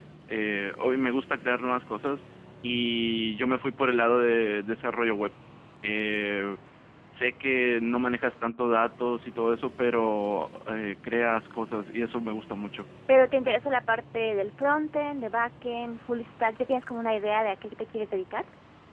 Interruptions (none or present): none